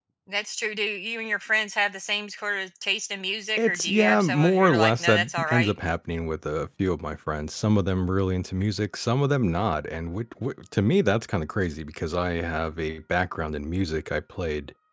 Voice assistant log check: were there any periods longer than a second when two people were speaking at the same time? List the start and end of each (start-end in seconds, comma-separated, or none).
3.6-5.7